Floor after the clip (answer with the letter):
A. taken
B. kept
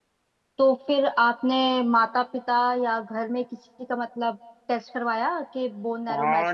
A